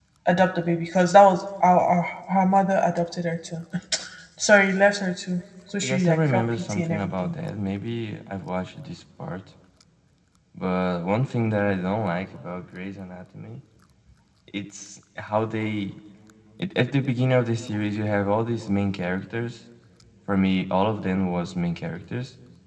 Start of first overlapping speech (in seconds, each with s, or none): 5.8 s